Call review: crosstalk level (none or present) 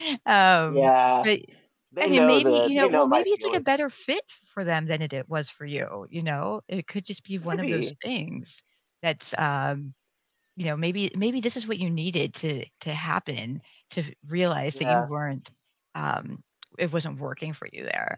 present